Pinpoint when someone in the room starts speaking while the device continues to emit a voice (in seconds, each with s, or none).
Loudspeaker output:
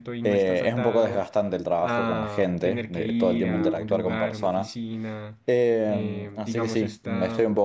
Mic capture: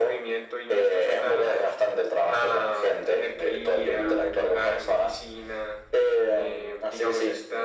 none